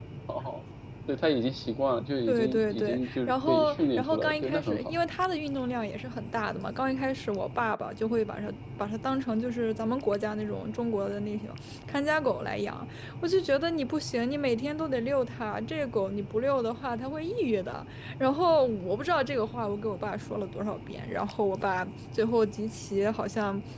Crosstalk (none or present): present